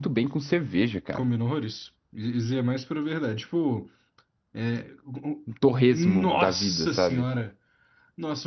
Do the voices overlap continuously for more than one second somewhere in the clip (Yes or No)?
Yes